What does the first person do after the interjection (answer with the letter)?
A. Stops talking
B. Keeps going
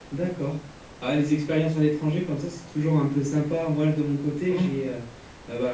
B